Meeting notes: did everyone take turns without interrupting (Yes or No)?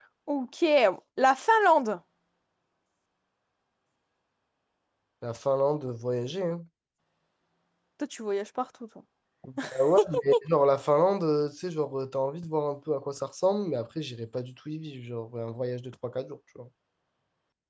Yes